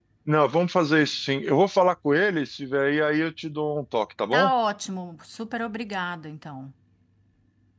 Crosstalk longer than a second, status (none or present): none